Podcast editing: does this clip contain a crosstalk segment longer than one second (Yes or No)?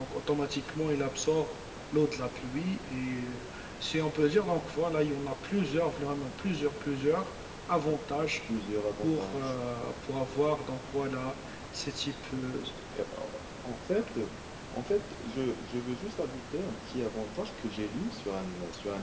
No